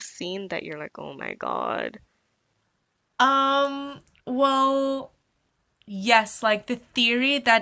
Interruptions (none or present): none